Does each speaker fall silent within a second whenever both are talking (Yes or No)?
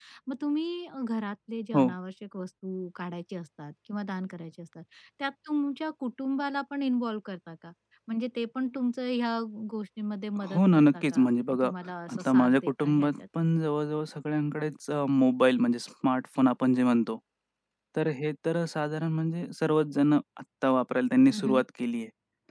No